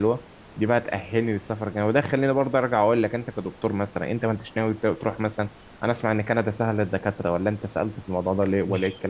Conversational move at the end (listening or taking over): taking over